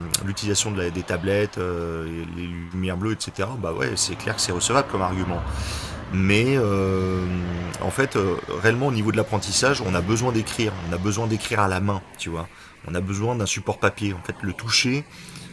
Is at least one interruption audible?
No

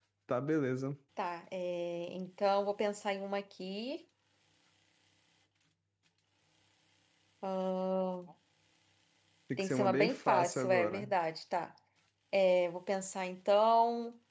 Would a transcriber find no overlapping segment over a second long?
No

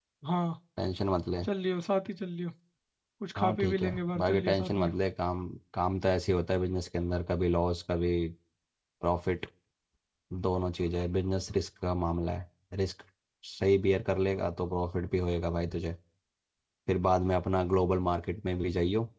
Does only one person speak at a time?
No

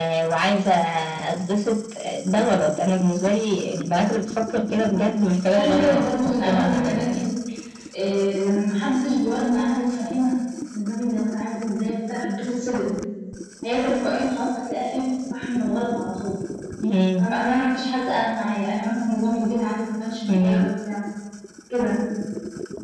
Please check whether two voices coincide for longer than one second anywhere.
Yes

